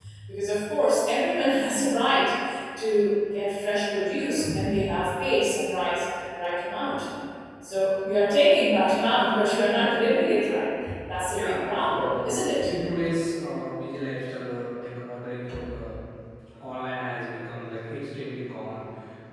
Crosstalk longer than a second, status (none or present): present